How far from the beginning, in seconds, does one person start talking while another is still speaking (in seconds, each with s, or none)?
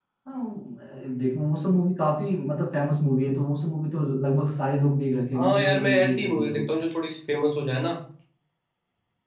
5.3 s